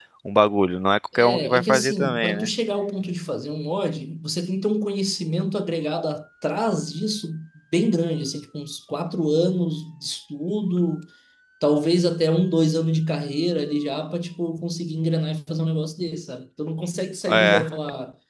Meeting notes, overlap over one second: present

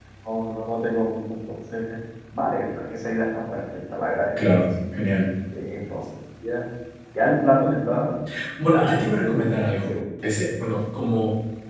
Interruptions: present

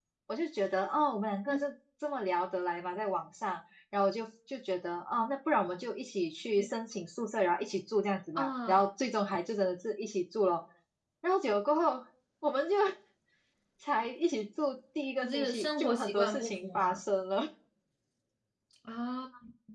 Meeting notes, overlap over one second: present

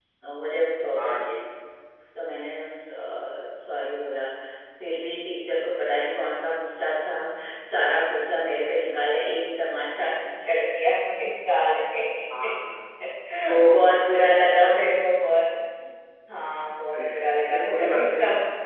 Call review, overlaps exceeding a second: present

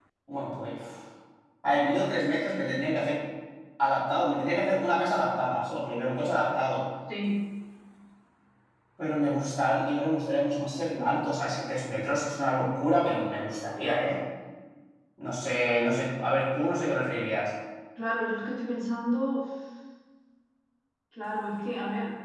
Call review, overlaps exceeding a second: none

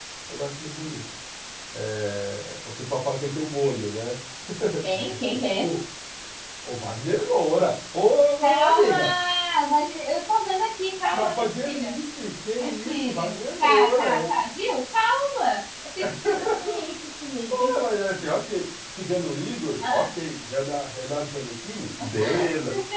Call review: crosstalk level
present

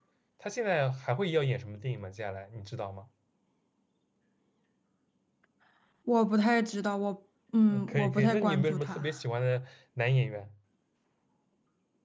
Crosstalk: present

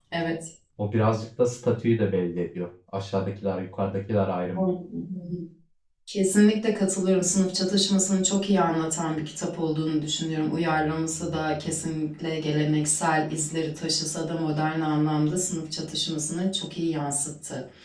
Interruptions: none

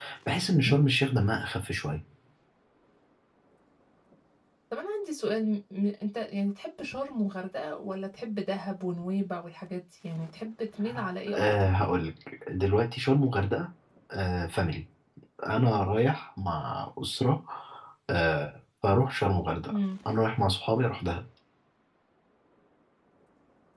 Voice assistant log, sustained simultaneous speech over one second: none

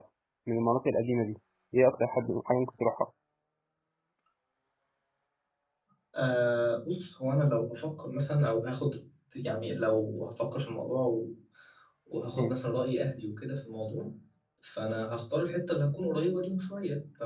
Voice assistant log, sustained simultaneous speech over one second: none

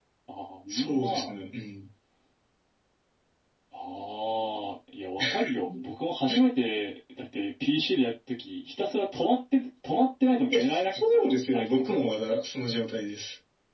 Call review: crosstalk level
present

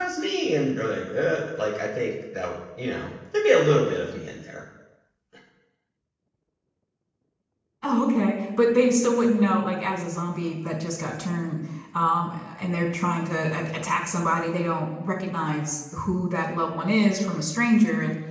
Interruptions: none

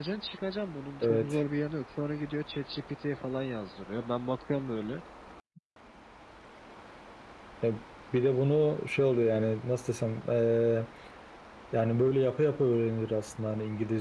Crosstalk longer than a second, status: none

